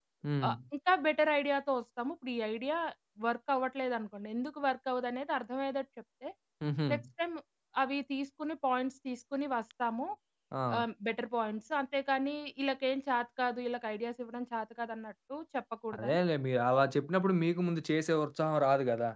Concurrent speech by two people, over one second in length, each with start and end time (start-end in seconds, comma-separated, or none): none